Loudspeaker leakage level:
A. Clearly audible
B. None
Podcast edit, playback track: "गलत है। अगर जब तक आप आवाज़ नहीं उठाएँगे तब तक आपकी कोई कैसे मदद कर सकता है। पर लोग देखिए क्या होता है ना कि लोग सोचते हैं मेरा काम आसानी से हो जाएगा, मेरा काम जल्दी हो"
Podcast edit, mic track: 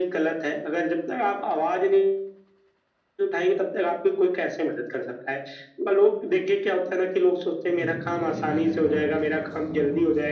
A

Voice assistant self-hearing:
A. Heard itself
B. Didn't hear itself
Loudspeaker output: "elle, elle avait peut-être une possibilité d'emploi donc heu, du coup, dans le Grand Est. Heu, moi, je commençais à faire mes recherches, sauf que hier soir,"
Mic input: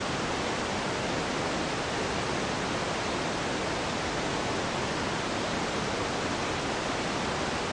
B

